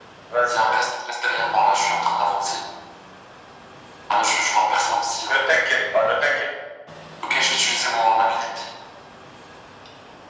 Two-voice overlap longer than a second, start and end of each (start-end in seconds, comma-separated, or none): none